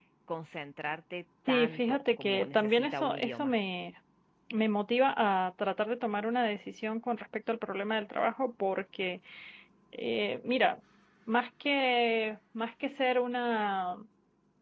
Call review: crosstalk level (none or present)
present